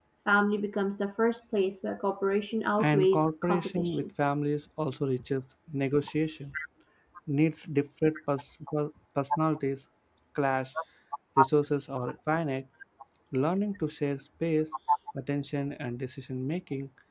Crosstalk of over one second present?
Yes, from 2.8 s

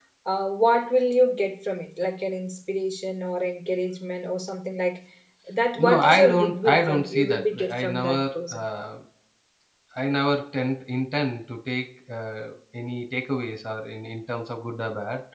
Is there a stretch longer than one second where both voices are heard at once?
Yes, from 5.8 s

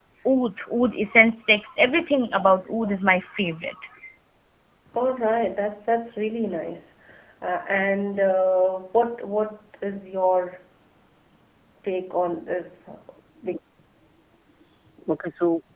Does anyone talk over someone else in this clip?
No

